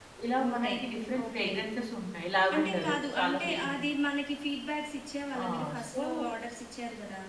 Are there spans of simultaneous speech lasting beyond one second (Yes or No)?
Yes